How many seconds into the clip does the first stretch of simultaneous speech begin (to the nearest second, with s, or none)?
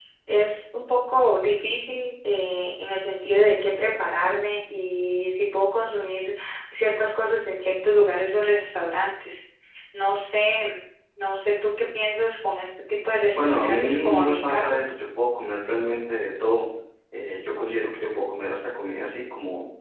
13 s